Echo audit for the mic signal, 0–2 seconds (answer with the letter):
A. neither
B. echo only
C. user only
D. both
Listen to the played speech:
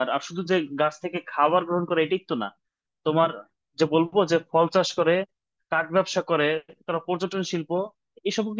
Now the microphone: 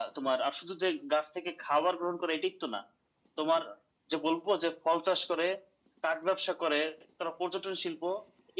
B